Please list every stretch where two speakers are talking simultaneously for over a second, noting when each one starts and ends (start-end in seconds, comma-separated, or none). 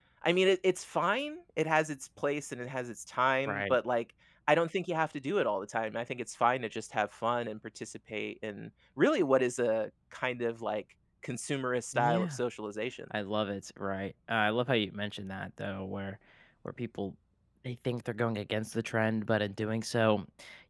none